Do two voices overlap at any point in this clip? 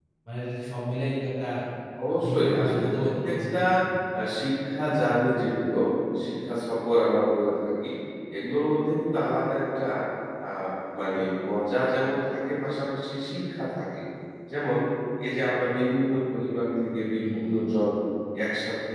Yes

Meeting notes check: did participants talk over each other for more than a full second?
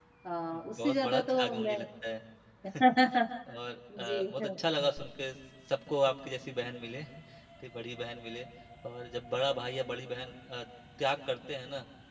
Yes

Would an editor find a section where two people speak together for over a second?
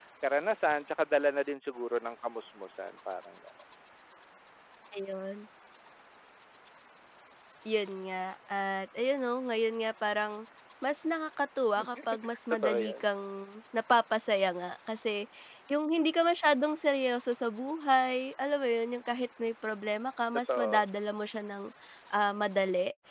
No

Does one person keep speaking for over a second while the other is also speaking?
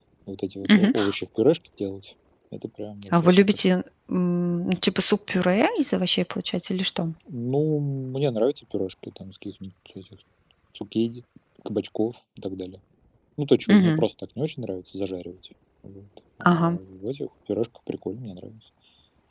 No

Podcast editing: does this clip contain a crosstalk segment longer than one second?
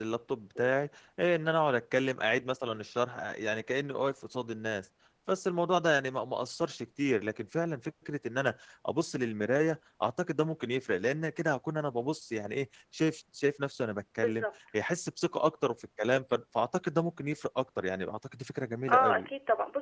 No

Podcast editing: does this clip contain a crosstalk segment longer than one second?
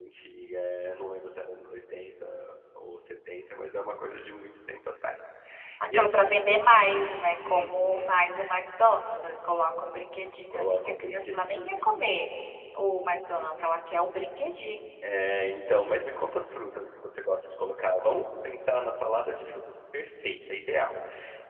Yes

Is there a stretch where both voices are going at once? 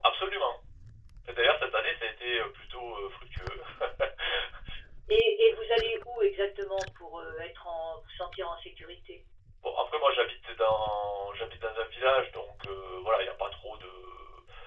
No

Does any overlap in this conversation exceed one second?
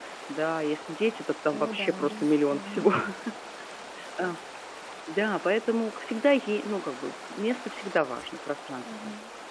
Yes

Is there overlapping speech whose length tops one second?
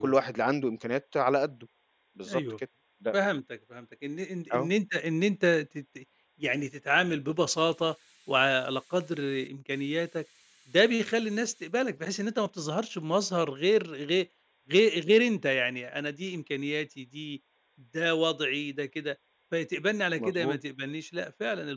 No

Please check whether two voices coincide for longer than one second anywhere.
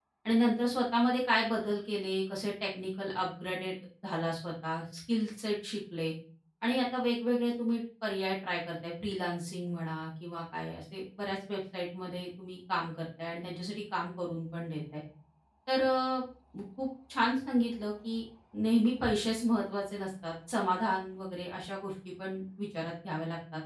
No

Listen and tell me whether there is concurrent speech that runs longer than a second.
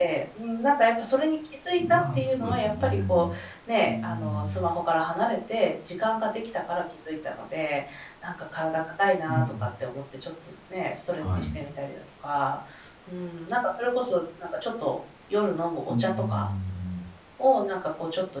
Yes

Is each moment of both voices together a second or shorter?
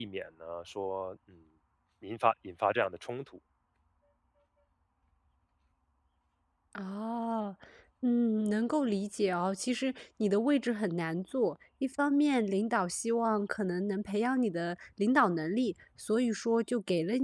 Yes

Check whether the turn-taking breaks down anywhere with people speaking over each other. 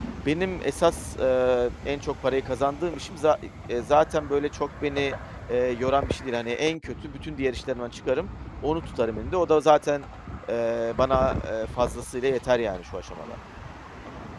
No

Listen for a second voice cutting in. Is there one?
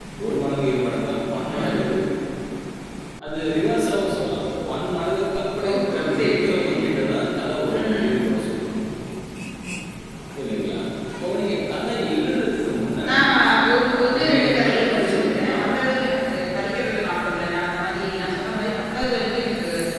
Yes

